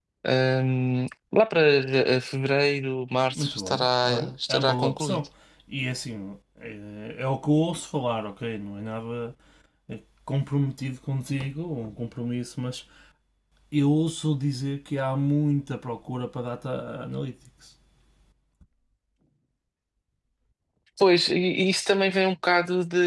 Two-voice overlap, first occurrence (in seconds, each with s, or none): 3.3 s